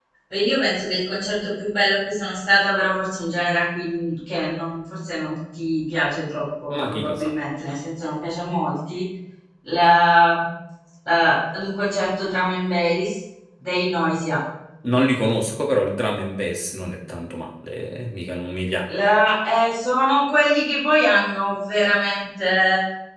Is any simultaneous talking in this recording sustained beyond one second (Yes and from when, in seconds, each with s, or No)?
No